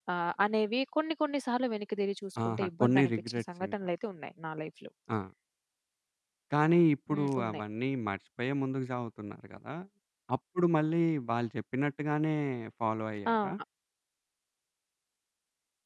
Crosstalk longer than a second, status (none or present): present